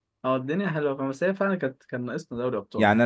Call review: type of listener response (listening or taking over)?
taking over